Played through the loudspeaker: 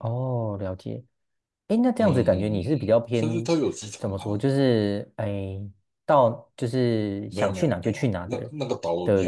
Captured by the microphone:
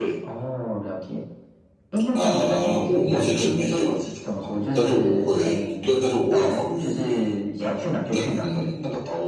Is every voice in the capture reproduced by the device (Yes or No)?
No